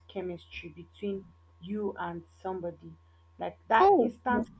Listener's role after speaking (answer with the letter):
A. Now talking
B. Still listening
B